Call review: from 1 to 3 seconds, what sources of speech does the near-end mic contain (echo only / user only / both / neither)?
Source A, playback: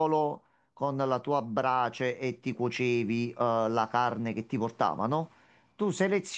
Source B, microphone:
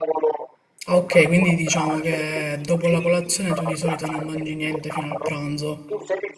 both